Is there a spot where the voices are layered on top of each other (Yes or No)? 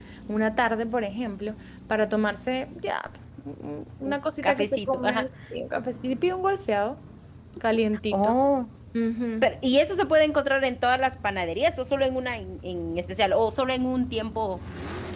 Yes